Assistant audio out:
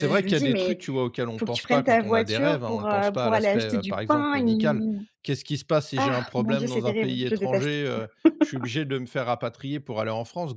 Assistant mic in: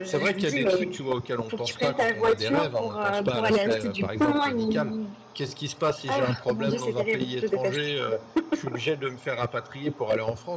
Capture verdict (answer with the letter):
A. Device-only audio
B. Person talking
A